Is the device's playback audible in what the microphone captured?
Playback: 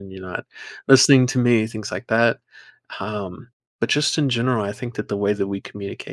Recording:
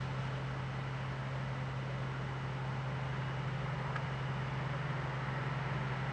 No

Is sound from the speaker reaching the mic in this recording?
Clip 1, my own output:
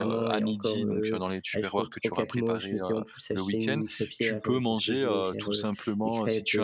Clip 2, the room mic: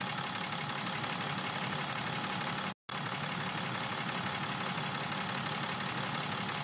No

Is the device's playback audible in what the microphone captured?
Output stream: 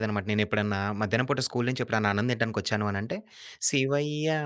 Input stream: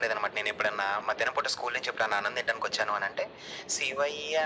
Yes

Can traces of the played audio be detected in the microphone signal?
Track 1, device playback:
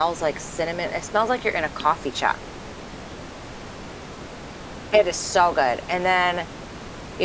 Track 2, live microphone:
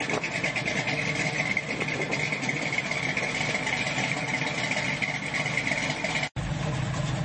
No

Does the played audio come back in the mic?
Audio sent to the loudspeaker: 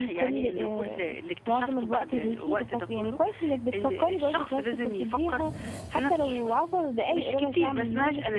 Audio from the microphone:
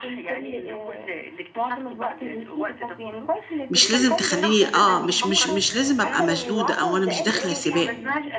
Yes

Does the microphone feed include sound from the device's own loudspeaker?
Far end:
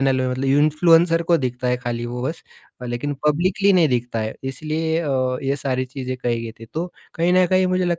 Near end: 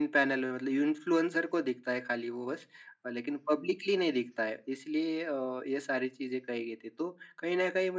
Yes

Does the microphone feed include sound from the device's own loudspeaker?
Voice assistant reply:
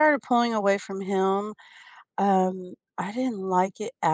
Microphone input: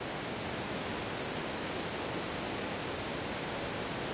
No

